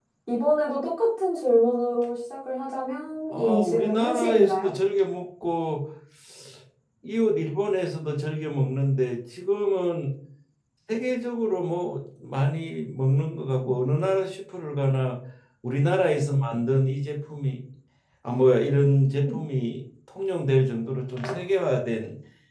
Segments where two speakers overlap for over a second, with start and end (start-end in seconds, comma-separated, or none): 3.3-4.7